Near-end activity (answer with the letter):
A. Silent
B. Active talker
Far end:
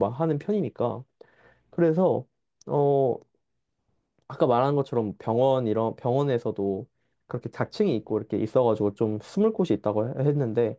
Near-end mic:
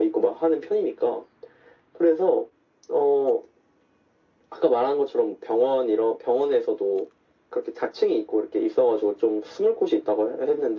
A